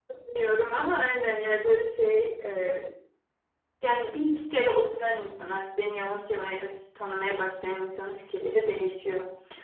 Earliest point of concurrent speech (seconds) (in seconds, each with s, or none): none